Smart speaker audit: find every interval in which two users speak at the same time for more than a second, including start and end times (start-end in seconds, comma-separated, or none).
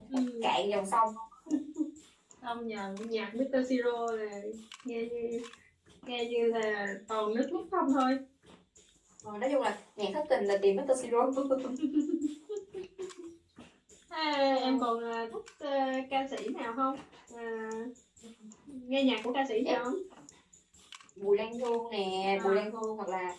none